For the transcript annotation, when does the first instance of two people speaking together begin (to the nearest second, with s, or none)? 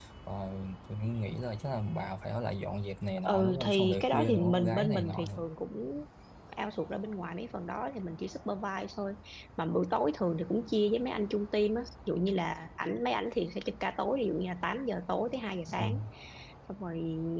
3 s